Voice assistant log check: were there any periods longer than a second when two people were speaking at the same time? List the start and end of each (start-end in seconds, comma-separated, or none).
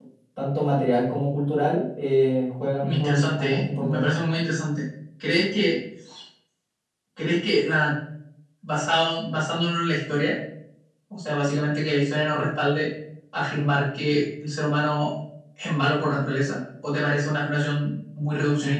2.8-4.1